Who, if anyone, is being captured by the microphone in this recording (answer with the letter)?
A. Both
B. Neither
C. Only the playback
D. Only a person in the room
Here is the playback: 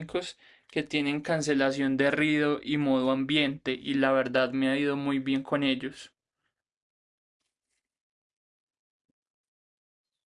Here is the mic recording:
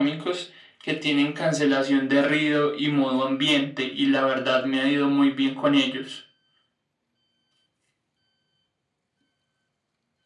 C